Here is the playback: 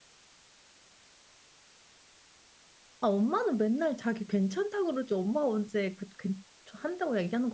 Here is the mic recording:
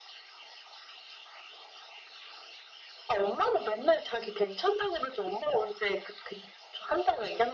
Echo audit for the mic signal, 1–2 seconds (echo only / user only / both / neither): neither